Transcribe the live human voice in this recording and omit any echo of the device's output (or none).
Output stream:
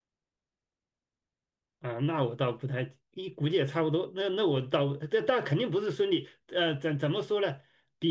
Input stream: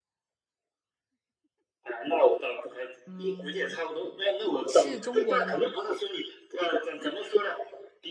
嗯，是中国的吗？